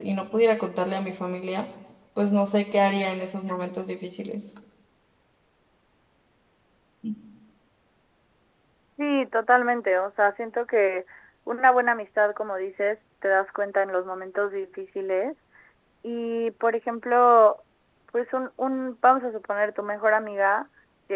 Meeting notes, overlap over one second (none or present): none